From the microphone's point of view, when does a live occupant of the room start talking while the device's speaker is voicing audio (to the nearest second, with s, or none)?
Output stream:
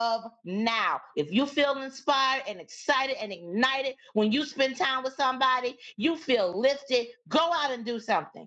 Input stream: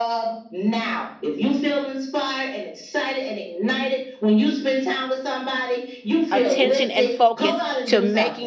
6 s